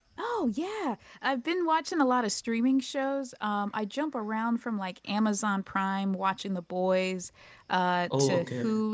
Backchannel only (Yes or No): Yes